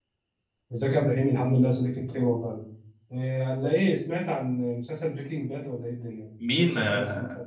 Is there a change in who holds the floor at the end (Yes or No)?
Yes